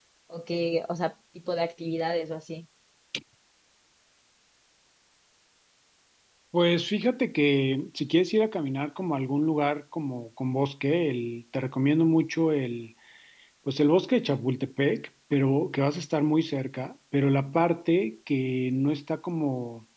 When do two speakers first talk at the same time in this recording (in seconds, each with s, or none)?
none